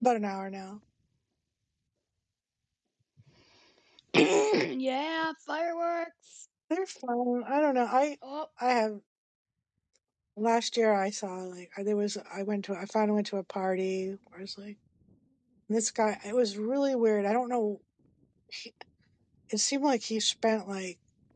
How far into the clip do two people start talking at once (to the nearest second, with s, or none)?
none